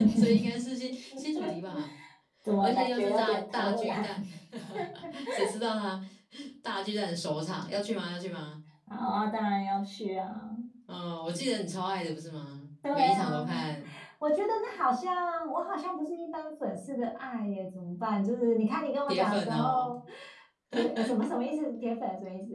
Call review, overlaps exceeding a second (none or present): present